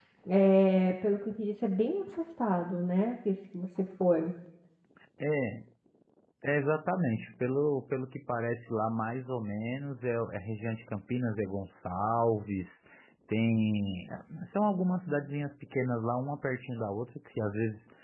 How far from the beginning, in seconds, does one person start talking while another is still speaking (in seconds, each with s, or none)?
none